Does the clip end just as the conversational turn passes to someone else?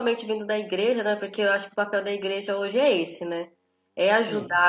No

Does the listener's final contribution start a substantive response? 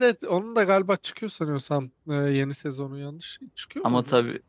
Yes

